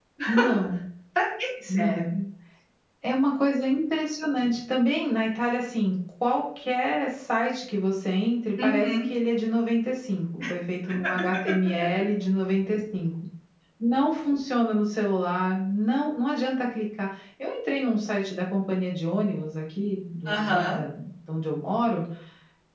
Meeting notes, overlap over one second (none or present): none